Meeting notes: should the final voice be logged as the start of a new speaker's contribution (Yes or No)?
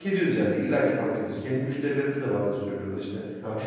No